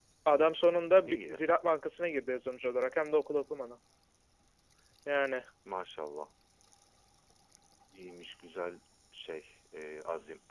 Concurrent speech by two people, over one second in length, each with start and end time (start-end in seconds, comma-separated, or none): none